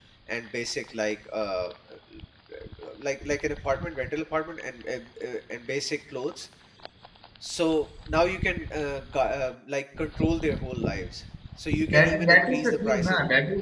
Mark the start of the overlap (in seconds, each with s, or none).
11.8 s